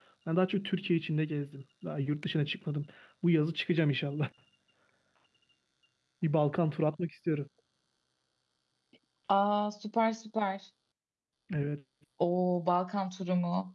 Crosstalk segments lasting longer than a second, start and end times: none

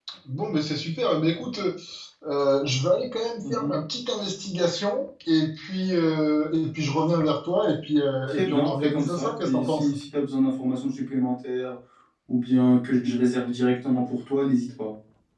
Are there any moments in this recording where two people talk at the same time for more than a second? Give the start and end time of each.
8.3-9.9

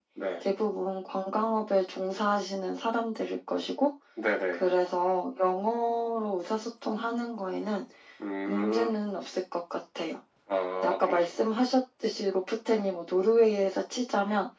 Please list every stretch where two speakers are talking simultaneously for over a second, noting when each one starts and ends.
none

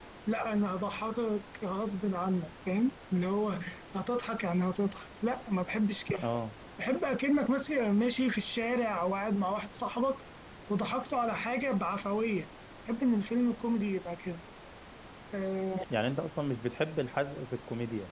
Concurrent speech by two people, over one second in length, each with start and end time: none

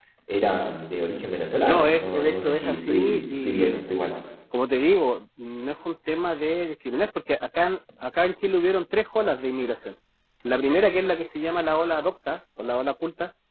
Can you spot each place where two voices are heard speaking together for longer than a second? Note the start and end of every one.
1.7-3.8

